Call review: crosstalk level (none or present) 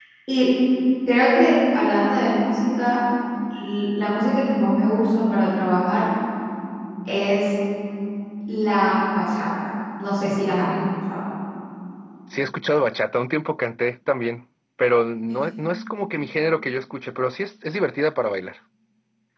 none